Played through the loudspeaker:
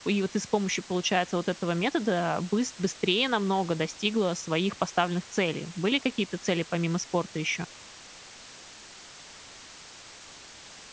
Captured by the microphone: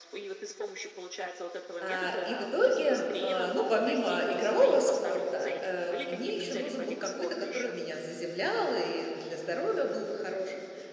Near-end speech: present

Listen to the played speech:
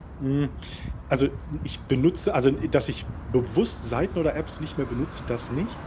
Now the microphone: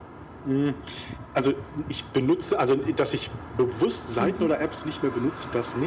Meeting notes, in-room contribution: present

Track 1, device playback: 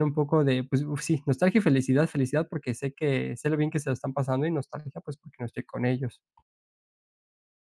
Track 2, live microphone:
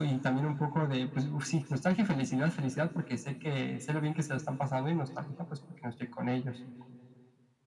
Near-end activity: none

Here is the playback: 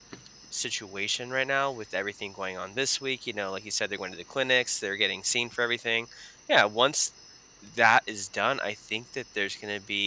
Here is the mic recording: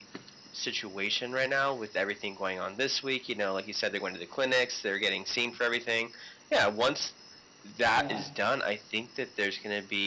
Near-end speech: present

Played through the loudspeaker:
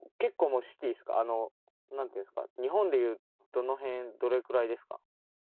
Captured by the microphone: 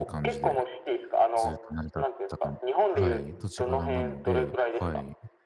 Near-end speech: present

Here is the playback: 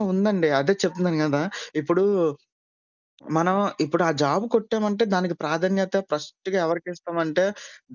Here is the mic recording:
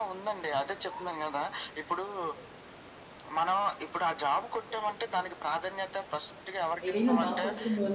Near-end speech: present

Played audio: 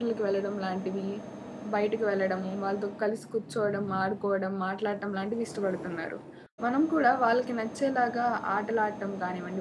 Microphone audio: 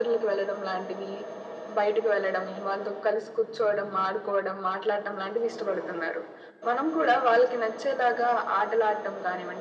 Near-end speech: none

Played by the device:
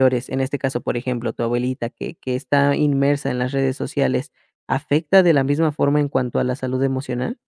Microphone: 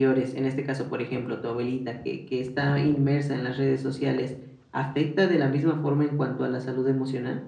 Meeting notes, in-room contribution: none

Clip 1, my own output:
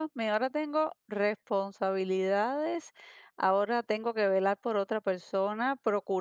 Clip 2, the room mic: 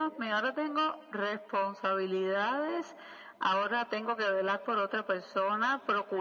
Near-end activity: none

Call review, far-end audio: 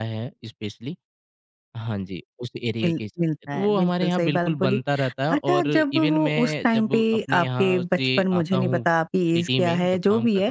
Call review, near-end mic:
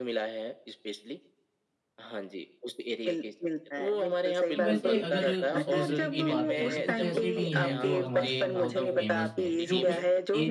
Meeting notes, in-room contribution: present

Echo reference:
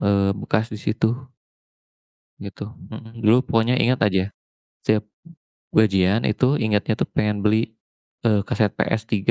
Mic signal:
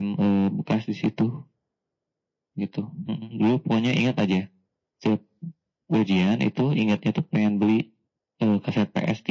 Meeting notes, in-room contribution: none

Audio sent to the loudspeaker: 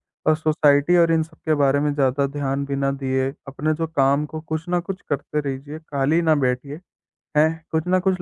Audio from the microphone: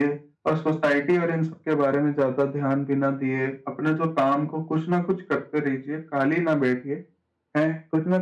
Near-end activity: none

